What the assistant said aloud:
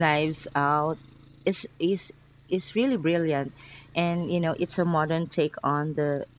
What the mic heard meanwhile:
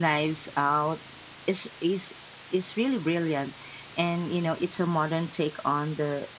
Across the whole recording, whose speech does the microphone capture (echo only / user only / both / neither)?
echo only